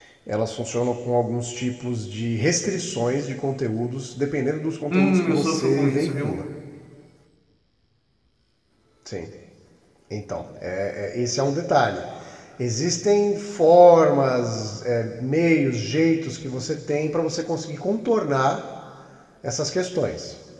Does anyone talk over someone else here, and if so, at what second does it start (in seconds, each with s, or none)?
4.9 s